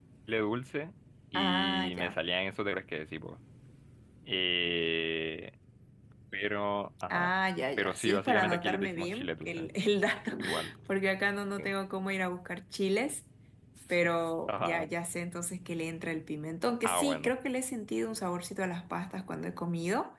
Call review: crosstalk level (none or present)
present